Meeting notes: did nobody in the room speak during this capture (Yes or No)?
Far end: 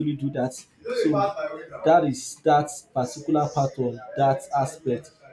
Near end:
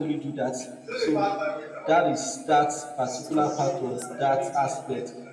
No